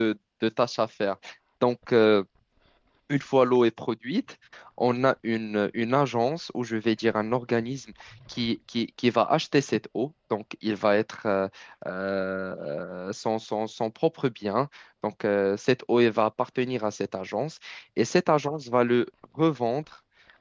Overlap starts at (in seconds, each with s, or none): none